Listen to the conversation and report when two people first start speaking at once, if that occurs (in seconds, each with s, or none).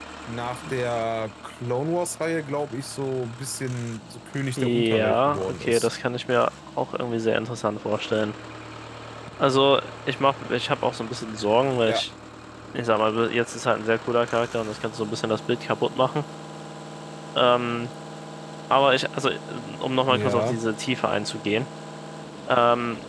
4.6 s